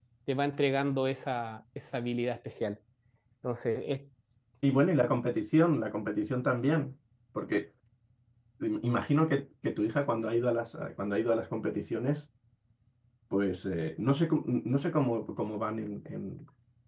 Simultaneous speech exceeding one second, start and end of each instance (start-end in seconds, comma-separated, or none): none